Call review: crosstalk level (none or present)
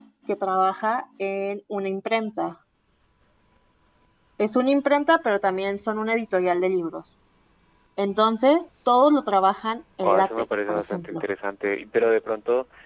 present